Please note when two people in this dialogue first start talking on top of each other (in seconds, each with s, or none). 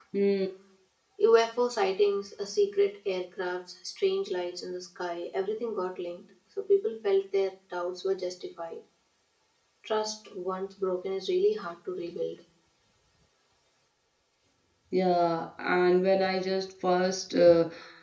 none